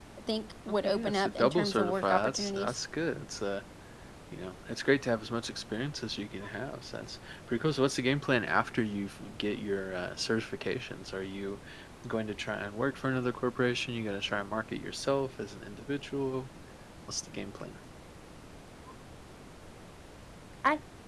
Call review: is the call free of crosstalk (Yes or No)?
No